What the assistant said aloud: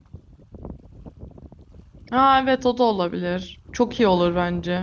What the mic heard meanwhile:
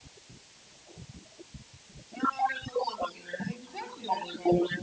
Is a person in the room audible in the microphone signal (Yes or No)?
Yes